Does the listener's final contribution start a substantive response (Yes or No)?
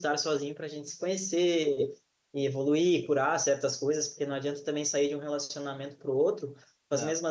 No